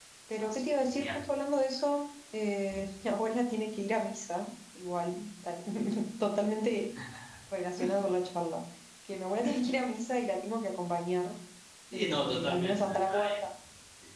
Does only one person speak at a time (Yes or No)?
No